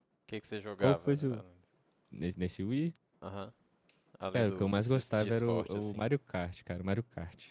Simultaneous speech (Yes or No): Yes